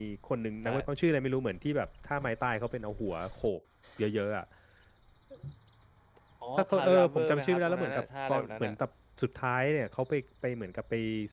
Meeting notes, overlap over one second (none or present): present